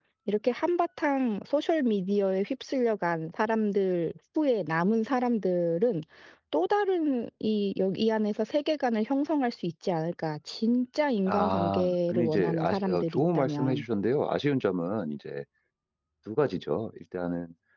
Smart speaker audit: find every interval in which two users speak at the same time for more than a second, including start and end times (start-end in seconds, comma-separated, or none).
11.3-13.8